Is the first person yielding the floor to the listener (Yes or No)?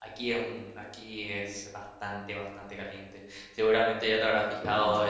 No